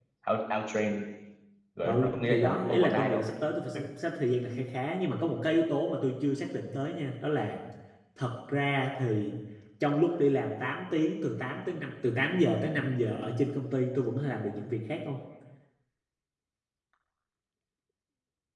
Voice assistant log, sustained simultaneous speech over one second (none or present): present